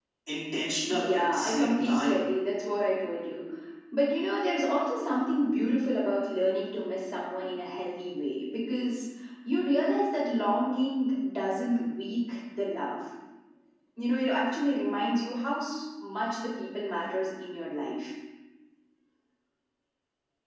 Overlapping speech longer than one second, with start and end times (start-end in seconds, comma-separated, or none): 0.9-2.2